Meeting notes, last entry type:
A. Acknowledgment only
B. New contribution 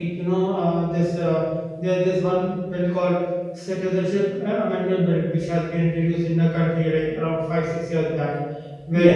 A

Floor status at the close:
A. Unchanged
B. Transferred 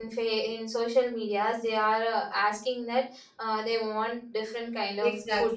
B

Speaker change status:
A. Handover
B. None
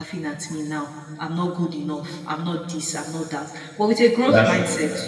B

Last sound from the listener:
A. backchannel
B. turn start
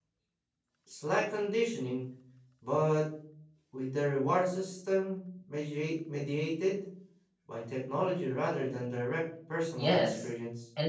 B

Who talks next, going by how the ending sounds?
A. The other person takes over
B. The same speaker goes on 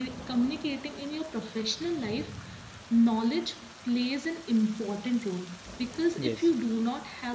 B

